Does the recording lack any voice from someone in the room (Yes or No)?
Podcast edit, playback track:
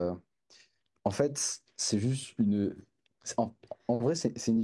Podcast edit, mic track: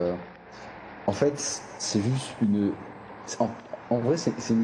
Yes